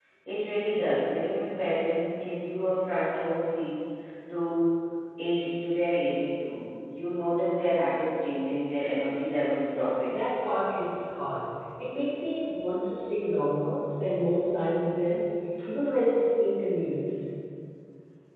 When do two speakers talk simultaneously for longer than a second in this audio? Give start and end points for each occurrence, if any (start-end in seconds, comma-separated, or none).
none